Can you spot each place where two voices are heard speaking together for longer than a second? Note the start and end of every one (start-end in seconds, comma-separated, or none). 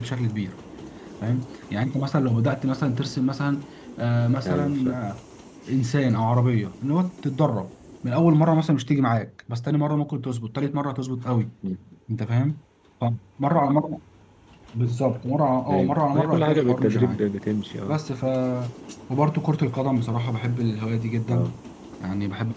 15.7-17.3